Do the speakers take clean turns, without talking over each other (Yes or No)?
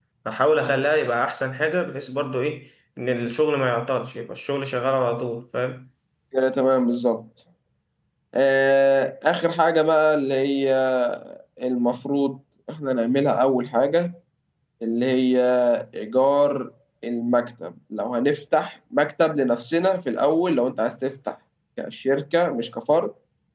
Yes